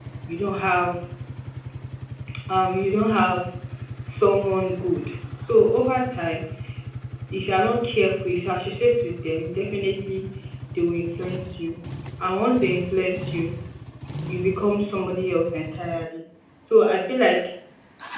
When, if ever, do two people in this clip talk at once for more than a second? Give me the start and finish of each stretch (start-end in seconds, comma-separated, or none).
none